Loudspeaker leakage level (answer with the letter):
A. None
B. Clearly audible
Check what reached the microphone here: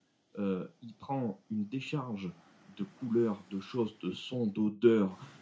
A